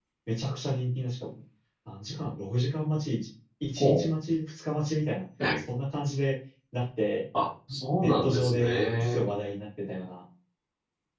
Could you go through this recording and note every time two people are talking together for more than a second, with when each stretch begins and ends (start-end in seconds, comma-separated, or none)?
8.0-9.3